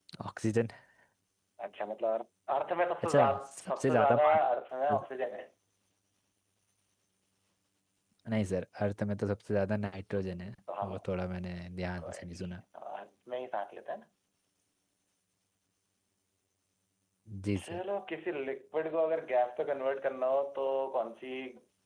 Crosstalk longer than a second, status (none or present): present